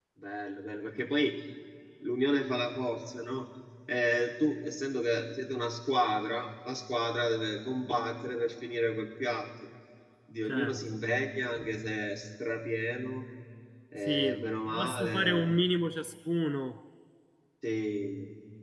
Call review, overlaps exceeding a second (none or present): present